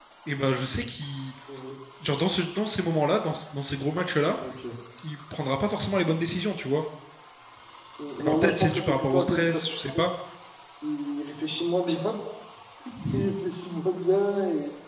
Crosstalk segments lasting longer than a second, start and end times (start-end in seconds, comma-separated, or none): 8.2-10.0